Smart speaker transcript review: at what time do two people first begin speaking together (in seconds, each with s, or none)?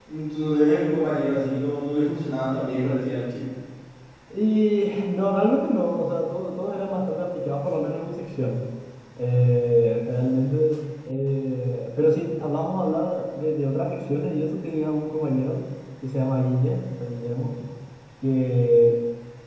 none